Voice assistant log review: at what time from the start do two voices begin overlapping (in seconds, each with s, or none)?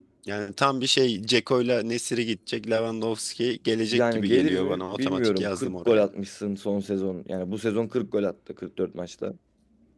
3.9 s